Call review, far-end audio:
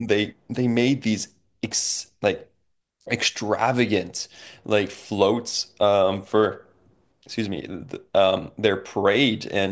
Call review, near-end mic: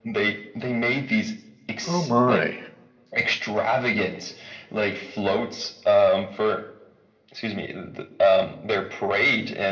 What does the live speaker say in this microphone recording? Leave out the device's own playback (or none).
Oh my.